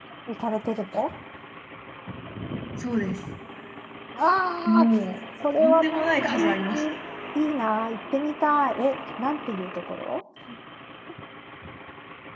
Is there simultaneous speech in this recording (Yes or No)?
Yes